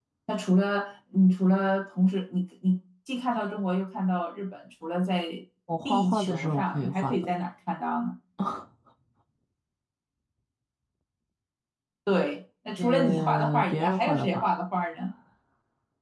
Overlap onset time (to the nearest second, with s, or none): 6 s